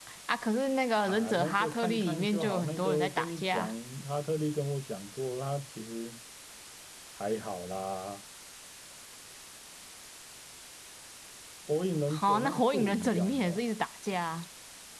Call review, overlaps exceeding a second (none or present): present